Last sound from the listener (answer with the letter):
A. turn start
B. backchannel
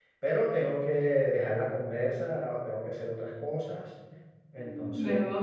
A